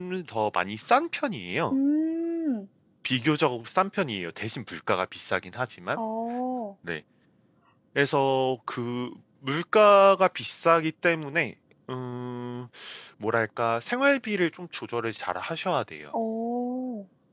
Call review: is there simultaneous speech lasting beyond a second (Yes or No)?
No